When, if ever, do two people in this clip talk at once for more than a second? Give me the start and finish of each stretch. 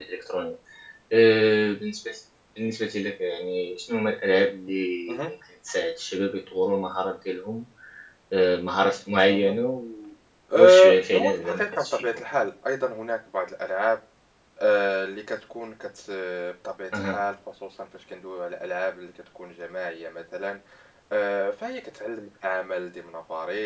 10.5-12.1

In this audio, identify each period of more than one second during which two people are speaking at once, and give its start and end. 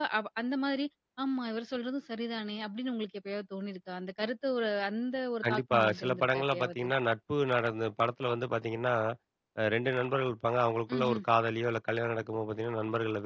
5.5-6.8

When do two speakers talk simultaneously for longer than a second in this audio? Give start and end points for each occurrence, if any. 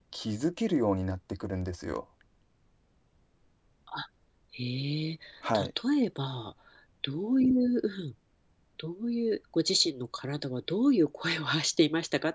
none

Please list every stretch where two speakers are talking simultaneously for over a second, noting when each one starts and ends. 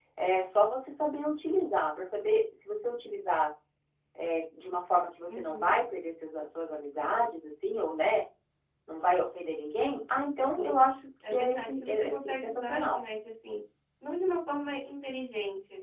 11.3-13.0

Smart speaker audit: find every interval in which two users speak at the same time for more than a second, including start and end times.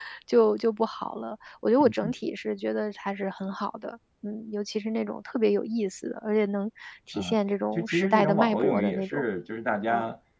7.8-9.2

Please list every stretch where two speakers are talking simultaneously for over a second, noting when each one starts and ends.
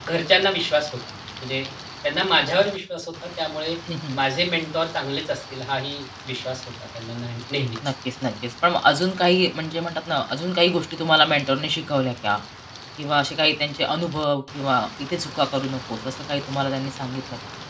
none

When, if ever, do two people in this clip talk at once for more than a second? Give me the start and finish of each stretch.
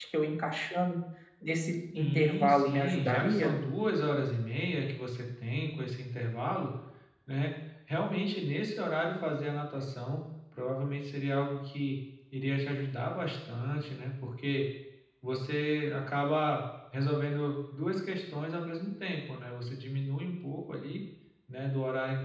1.9-3.5

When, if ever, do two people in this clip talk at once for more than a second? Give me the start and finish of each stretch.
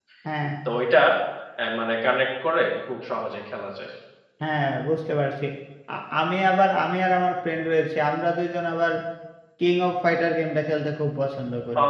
none

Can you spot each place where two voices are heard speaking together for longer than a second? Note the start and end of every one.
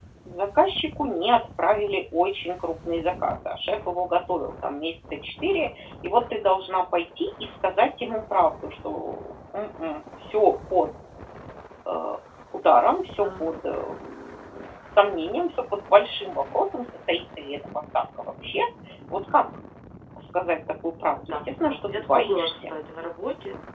21.3-22.5

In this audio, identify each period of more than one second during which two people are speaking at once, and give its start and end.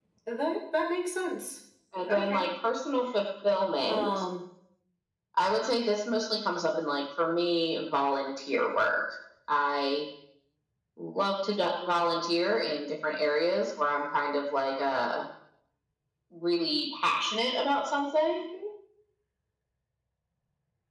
none

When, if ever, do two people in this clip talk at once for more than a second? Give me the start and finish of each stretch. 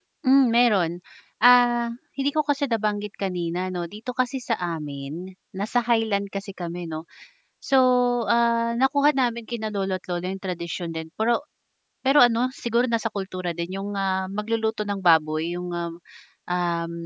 none

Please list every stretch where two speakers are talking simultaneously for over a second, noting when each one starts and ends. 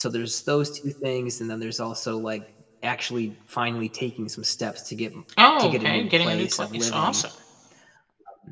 5.6-7.2

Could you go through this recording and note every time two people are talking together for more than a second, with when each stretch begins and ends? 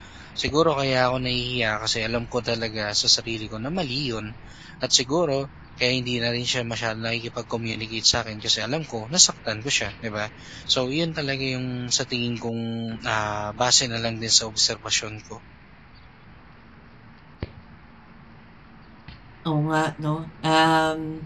none

